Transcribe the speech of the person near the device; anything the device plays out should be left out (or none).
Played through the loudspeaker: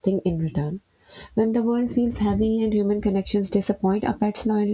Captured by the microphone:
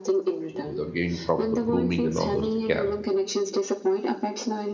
without giving proper grooming and all those things care